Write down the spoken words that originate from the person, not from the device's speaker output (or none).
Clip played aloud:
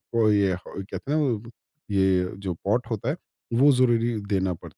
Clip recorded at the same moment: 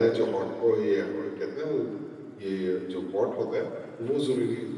none